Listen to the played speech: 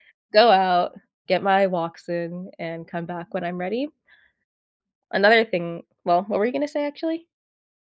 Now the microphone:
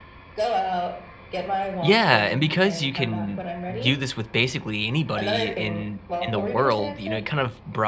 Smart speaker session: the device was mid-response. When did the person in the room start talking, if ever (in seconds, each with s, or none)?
1.8 s